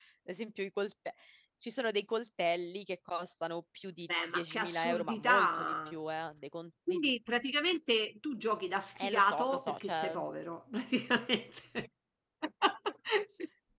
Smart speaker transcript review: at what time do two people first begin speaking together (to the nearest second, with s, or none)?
4 s